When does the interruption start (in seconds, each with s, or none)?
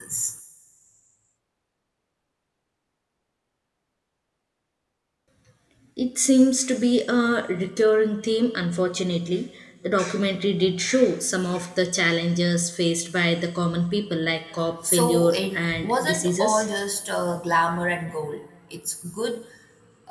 14.8 s